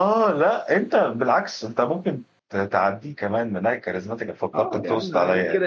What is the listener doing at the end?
taking over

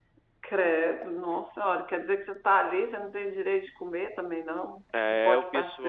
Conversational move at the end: taking over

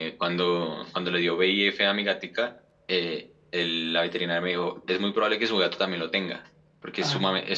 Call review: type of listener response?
listening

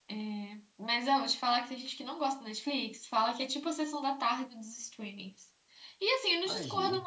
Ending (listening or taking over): listening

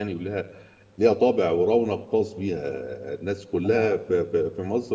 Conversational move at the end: listening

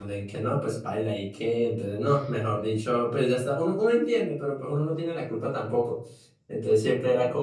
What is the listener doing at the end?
listening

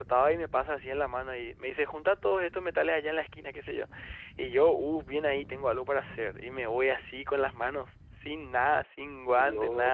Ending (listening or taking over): listening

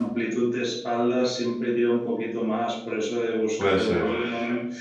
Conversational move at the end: listening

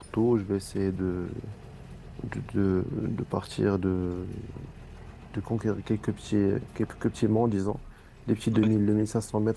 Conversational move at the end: listening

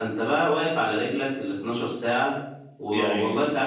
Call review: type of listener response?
listening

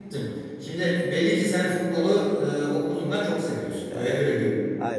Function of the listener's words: taking over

